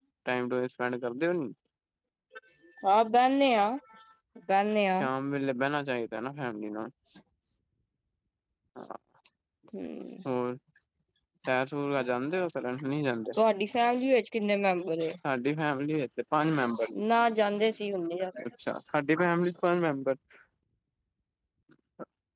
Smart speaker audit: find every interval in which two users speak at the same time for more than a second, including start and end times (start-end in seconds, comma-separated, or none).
none